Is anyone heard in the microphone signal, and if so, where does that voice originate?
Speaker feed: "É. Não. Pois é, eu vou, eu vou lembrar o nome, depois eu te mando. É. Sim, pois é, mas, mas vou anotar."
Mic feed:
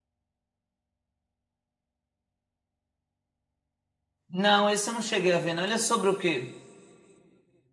user only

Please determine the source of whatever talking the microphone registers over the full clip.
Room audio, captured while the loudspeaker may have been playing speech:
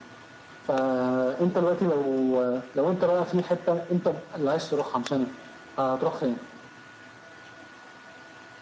echo only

